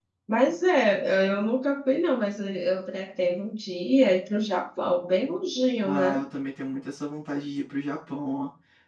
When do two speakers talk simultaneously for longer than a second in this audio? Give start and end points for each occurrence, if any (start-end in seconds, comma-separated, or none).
none